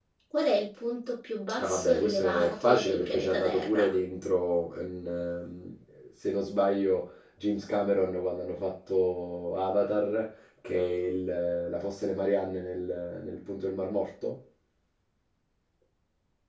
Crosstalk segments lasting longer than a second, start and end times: 1.6-3.9

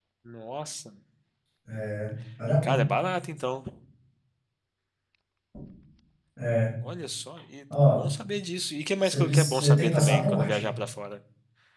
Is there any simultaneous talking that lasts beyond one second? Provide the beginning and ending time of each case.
9.0-10.7

